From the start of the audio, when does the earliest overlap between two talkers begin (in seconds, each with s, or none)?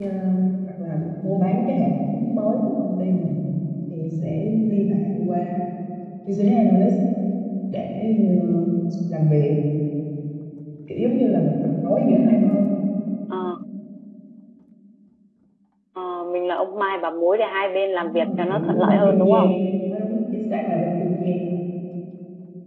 18.0 s